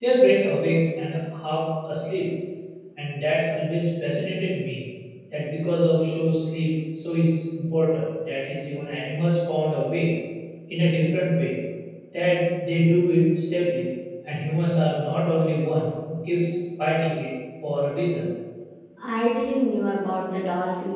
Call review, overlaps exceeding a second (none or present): none